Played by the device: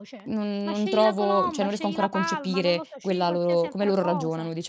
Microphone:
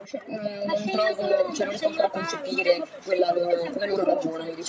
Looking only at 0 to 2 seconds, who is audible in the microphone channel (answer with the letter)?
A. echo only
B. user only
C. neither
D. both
A